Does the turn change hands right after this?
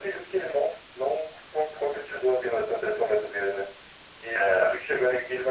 No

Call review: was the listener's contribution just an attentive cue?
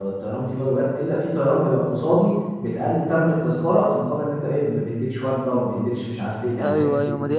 No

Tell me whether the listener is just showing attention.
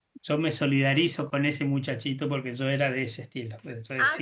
No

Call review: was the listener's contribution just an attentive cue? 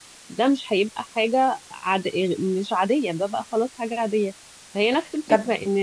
Yes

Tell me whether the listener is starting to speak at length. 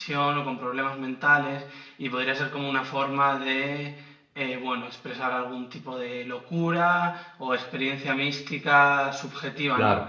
No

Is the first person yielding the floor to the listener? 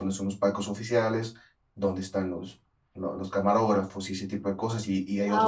No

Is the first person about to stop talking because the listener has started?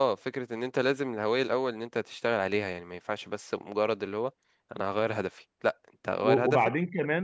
Yes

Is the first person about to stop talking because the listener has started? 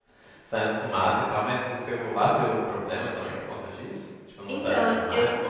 Yes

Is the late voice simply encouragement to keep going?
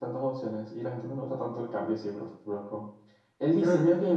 Yes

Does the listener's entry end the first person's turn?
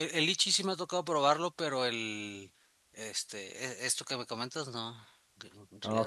Yes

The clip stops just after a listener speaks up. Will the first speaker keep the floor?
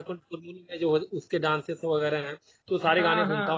Yes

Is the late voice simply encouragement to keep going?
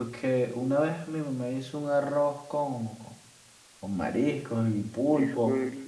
Yes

